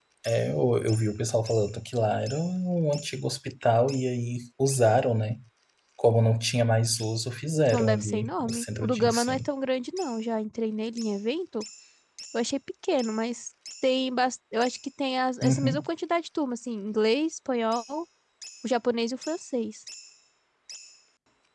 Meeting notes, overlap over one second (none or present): present